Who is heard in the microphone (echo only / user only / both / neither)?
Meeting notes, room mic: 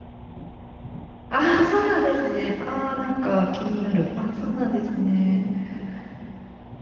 user only